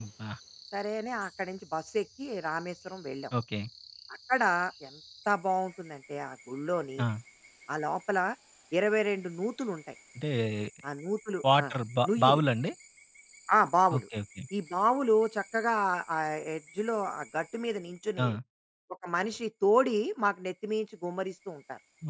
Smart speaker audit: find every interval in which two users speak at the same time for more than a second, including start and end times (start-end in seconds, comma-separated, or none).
none